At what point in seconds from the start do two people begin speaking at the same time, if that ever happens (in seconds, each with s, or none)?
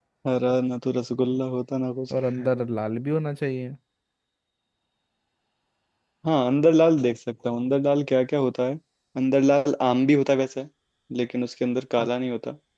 none